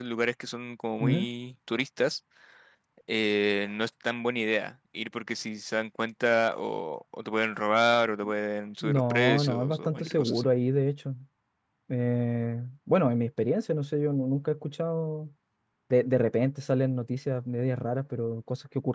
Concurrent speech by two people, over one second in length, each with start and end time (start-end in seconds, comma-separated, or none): 8.8-10.5